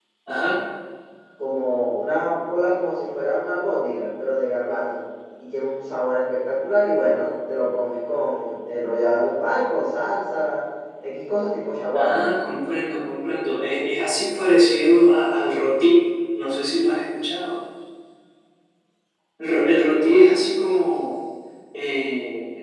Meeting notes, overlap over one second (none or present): none